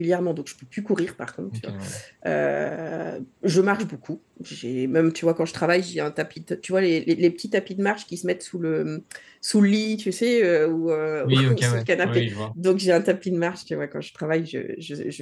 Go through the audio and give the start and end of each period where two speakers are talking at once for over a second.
11.2-12.4

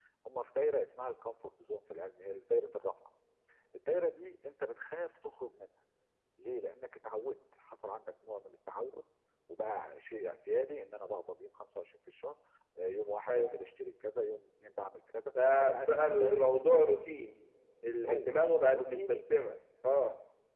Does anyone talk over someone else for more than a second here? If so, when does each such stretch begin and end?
15.6-16.8

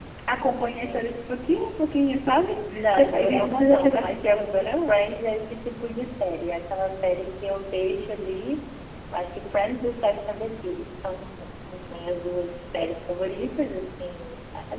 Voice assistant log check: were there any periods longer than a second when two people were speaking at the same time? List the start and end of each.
2.7-4.9

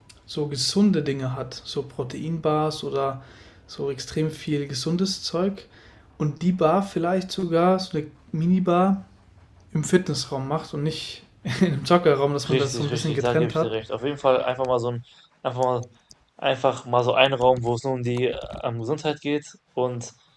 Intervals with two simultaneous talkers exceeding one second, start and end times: 12.5-13.8

